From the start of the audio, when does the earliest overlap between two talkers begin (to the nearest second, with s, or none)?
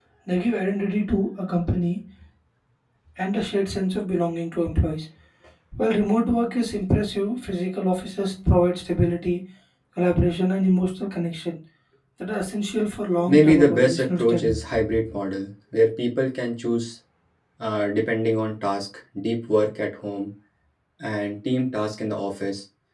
13 s